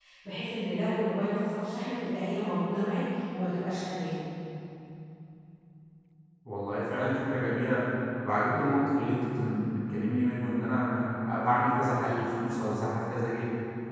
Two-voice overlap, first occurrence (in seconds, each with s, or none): none